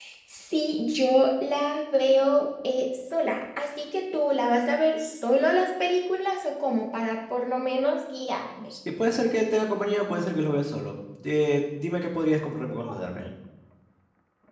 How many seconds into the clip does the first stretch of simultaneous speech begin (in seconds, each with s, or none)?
none